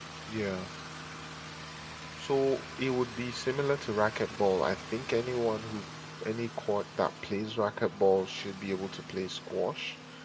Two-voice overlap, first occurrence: none

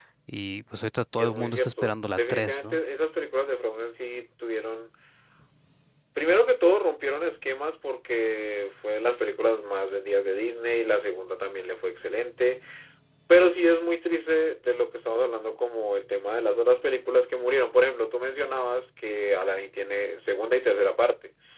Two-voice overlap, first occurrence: 1 s

